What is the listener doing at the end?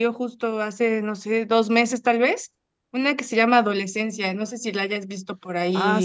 taking over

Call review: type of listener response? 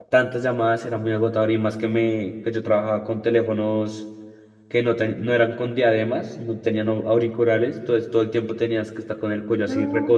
listening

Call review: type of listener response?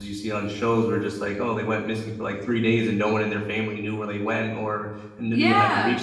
listening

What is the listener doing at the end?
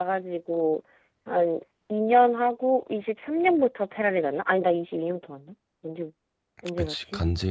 taking over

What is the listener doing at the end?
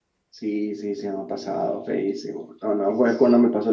listening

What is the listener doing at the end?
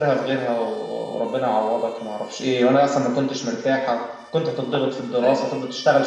listening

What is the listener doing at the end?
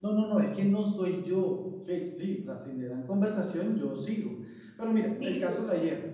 listening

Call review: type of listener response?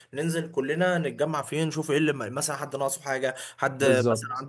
listening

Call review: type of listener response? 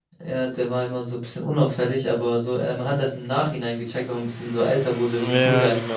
taking over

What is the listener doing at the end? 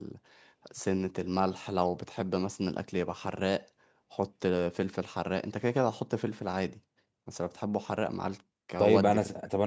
taking over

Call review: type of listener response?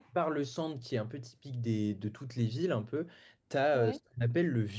listening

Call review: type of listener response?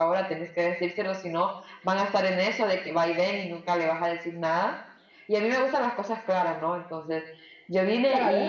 listening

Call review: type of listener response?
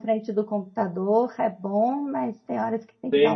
taking over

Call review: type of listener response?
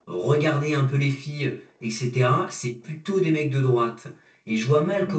listening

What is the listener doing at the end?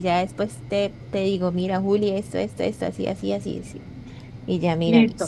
taking over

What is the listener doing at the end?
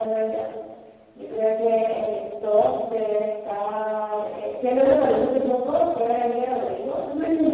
listening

